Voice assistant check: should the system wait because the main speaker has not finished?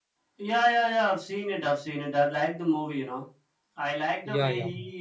Yes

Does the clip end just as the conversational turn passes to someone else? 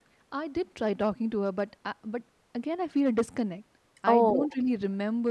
No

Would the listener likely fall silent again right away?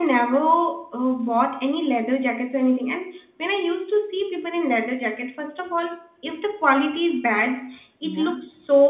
Yes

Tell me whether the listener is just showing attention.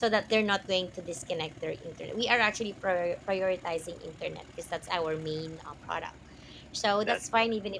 Yes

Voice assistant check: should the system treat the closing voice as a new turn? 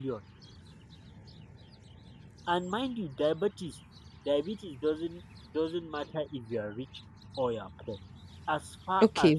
Yes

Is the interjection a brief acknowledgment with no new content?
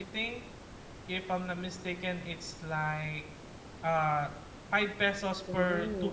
No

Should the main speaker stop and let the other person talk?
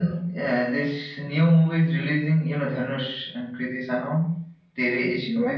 Yes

